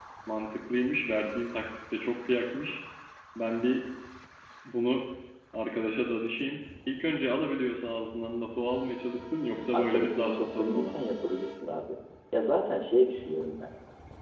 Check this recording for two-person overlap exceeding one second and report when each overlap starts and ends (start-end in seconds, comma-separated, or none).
9.7-11.0